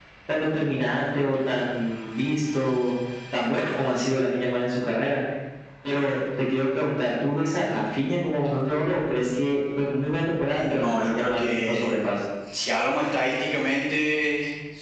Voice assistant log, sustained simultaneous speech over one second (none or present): present